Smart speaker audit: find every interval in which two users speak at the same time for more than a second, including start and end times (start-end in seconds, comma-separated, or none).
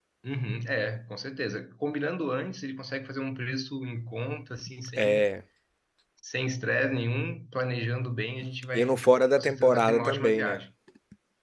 8.7-10.6